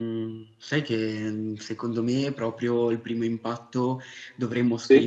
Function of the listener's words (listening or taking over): listening